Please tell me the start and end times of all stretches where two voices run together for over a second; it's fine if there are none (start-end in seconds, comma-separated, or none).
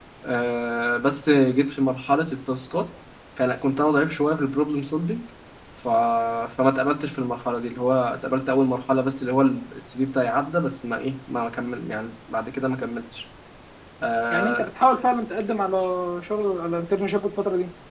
none